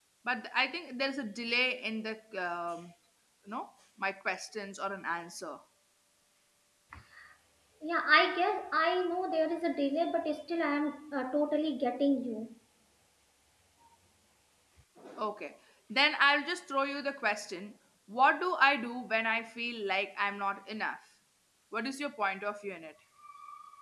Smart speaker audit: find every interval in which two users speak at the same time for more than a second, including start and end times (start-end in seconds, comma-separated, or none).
none